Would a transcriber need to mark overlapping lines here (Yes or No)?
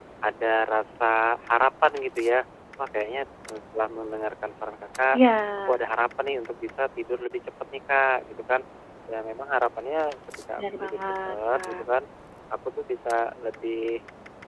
Yes